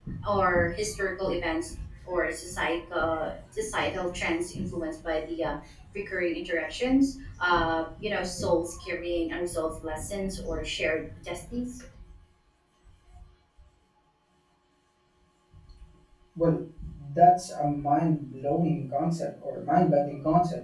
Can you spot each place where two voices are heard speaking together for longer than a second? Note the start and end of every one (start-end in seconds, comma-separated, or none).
none